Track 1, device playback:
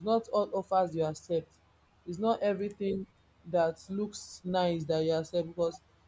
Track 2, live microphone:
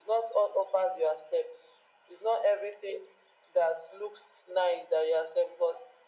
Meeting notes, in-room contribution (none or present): none